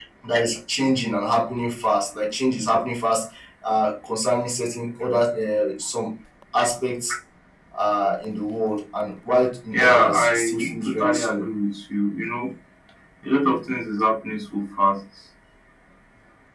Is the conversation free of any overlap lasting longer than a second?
No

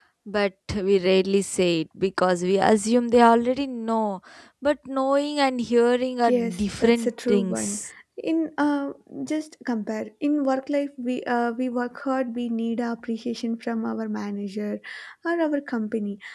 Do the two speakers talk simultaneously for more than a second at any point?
Yes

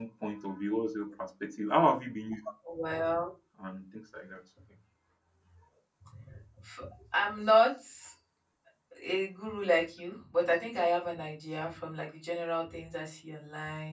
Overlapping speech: No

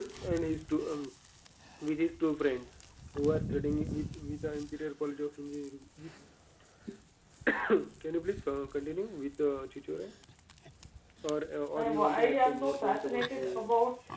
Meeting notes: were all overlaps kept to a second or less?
No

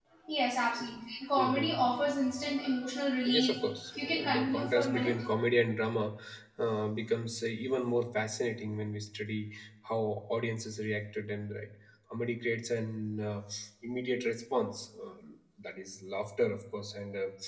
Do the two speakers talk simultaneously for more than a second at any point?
Yes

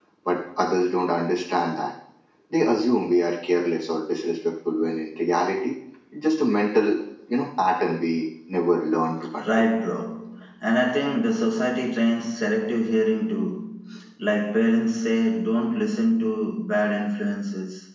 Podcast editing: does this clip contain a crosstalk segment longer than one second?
No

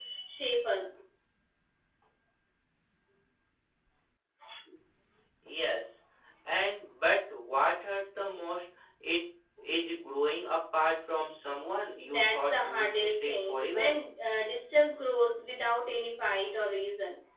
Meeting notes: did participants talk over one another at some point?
Yes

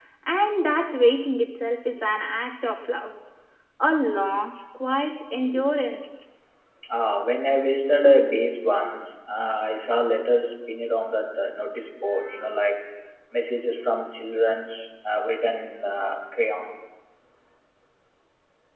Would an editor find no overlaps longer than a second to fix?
Yes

